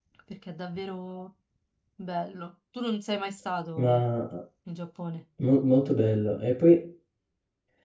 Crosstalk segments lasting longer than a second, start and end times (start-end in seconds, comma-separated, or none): none